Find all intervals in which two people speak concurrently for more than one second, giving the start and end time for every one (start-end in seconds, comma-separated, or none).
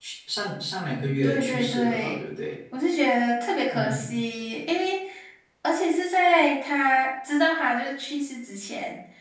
0.9-2.2